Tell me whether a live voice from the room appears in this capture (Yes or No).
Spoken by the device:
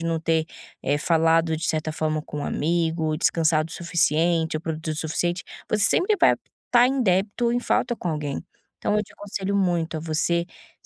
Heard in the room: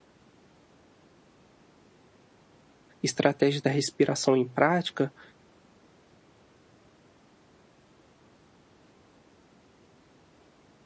Yes